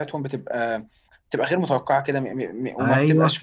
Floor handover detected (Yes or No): No